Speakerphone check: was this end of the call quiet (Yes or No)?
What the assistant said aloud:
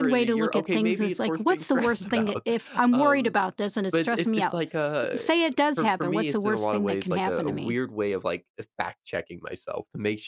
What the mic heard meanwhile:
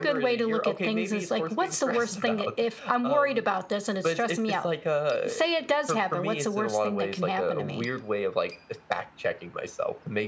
Yes